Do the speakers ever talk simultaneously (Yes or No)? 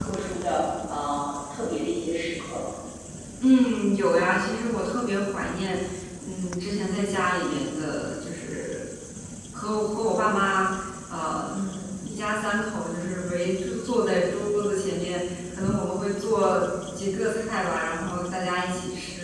No